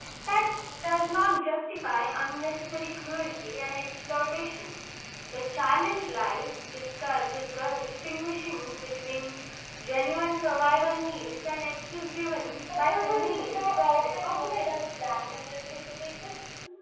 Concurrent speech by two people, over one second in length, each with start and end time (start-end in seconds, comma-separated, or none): 12.7-14.8